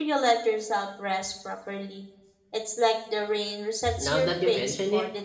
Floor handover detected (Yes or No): Yes